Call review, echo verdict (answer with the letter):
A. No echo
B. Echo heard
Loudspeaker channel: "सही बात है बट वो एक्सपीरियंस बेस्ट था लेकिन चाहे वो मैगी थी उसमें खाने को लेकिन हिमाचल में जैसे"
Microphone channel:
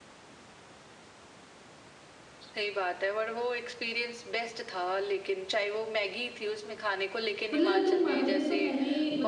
B